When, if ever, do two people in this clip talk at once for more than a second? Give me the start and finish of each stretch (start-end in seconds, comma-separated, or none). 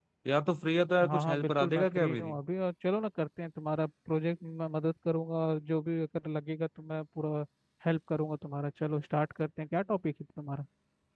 1.0-2.3